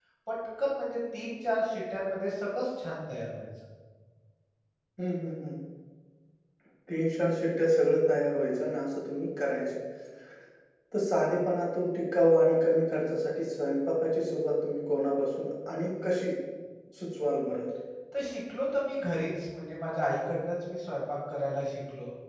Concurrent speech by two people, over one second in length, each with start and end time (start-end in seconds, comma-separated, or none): none